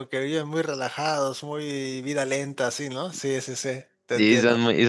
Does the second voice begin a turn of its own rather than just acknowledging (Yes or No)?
Yes